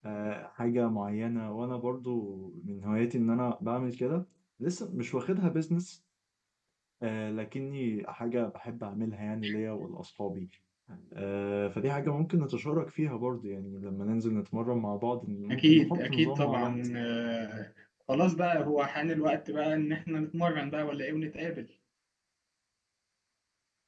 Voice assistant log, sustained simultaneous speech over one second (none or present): present